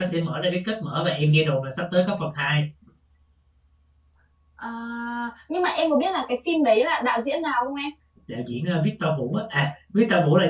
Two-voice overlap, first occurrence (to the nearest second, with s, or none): none